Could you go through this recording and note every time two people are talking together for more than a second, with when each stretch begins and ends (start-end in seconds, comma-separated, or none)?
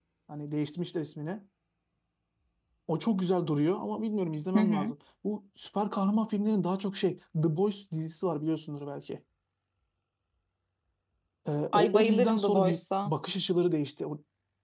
11.7-13.1